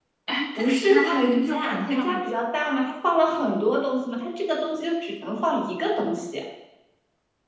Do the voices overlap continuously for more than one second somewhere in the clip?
Yes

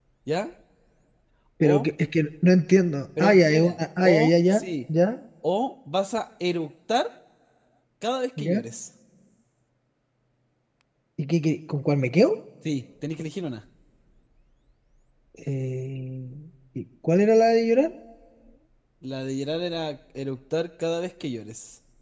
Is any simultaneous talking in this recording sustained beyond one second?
Yes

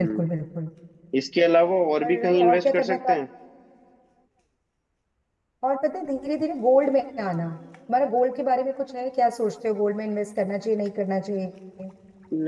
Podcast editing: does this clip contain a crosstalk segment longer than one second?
Yes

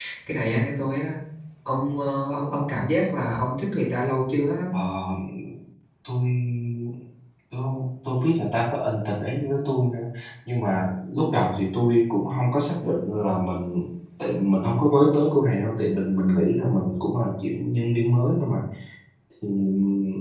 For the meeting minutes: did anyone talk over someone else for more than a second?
No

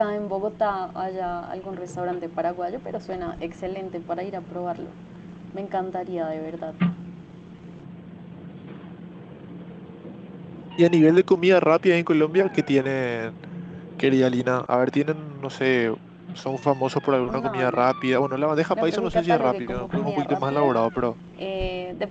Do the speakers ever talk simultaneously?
Yes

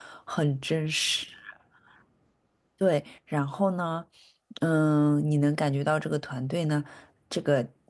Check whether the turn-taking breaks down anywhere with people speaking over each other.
No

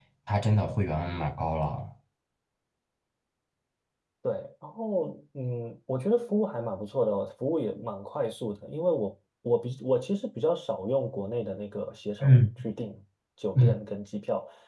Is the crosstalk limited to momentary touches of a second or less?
Yes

